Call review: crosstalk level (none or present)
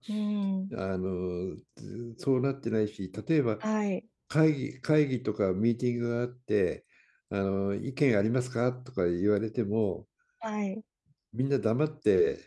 none